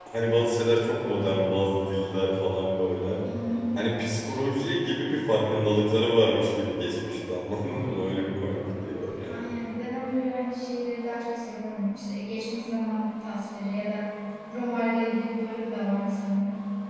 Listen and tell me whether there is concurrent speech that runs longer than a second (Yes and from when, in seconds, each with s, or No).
No